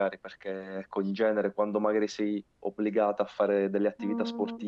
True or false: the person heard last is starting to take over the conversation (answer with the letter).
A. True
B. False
B